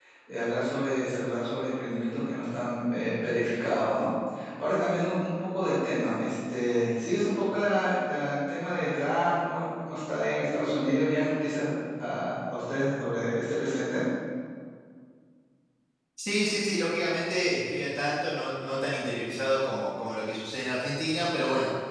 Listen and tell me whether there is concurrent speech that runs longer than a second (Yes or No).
No